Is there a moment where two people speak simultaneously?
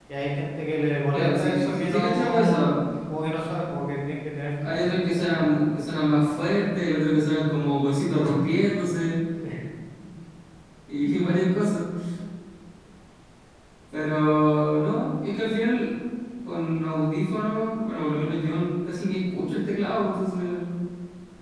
Yes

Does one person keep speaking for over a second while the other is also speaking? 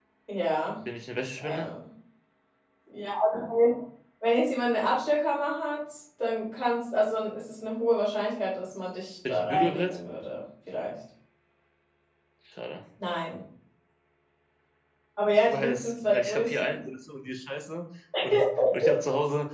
Yes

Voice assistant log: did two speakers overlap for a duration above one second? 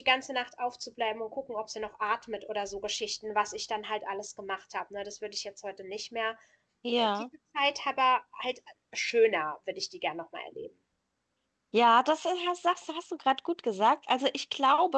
No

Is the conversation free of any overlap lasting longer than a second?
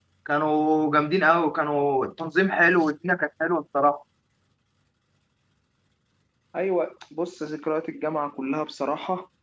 Yes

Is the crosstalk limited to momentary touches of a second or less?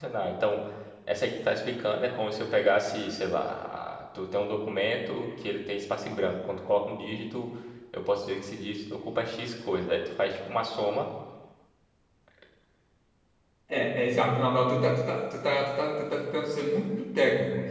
Yes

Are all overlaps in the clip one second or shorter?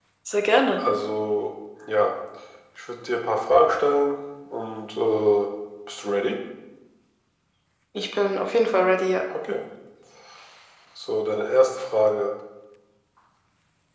Yes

